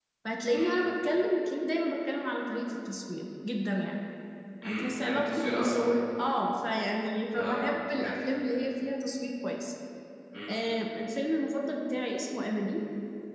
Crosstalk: present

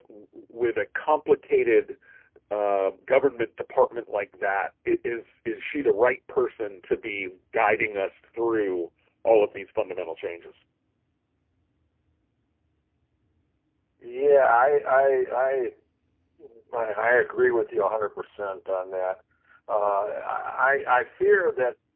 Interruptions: none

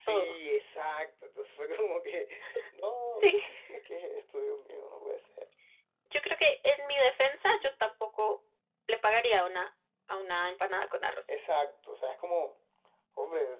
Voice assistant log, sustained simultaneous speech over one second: none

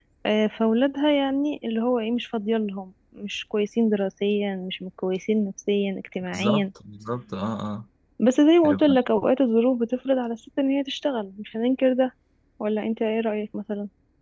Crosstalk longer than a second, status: none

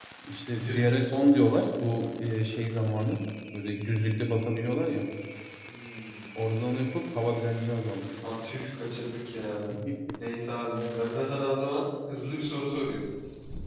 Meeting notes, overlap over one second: none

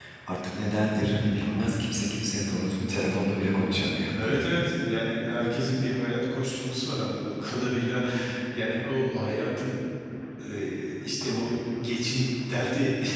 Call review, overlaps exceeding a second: none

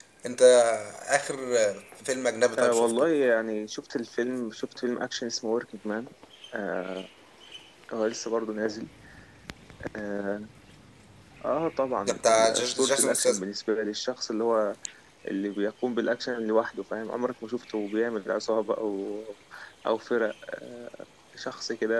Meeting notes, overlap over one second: present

